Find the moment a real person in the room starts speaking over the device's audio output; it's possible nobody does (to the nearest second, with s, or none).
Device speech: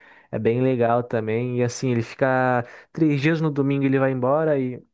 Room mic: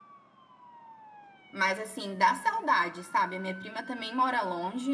2 s